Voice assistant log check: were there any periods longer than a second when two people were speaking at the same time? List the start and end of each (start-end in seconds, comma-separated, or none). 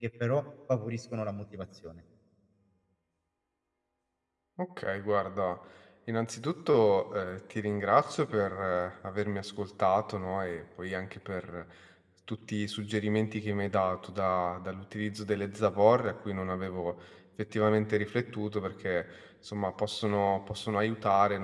none